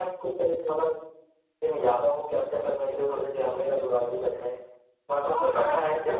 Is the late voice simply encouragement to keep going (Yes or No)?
No